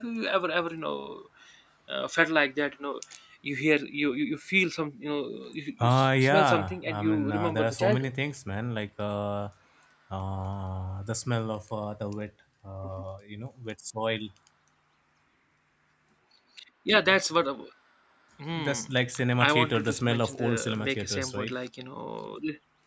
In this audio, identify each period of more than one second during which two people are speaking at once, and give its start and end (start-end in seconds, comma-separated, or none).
5.8-8.1, 19.4-21.6